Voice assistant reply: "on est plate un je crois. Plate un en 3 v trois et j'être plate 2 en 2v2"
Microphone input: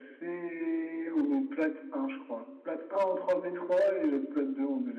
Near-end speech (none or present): none